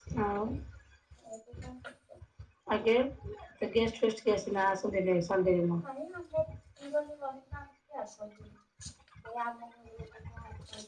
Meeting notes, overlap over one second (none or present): none